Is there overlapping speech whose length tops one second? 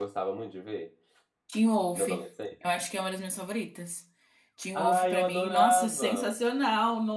Yes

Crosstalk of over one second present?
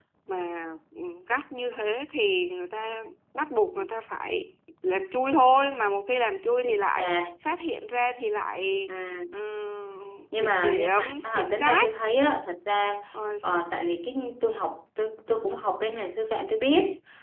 Yes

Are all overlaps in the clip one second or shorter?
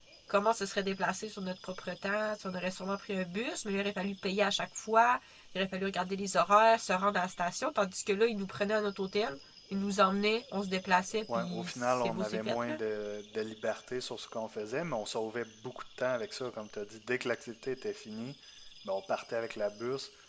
No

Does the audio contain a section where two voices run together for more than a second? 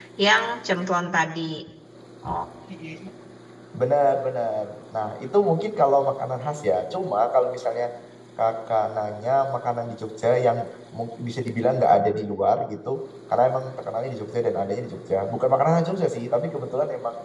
No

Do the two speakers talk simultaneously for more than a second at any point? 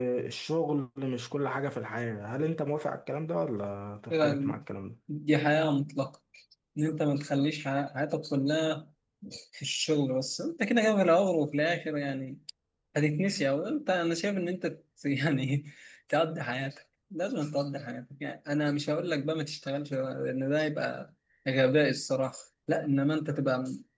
No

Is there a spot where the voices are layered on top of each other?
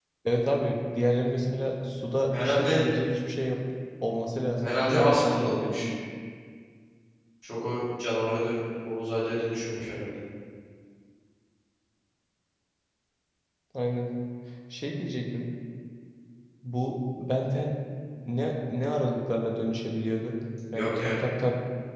Yes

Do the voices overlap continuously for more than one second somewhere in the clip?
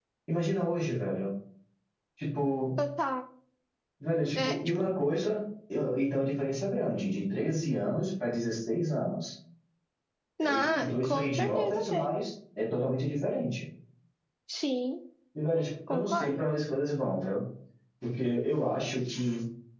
Yes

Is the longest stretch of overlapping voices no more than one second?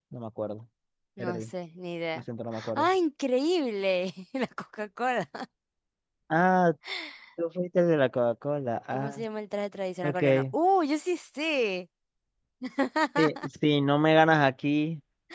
Yes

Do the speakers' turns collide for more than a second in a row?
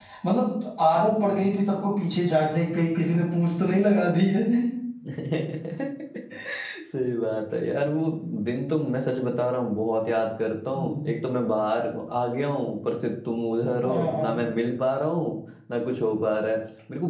No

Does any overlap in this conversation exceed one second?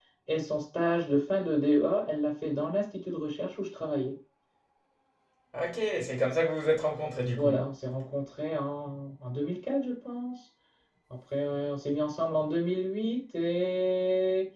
No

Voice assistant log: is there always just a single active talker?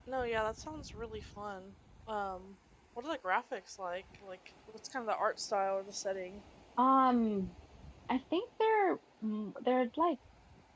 Yes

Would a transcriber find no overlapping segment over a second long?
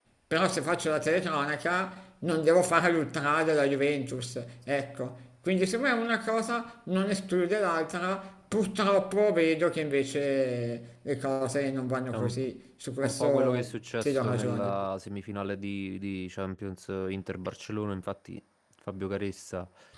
No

